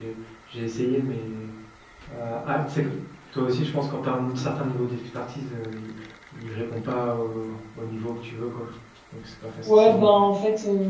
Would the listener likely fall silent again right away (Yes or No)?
No